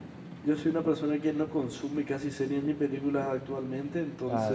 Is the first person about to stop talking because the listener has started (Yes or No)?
No